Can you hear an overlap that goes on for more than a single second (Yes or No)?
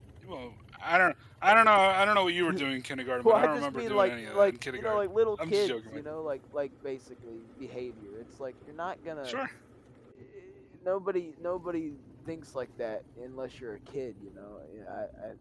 Yes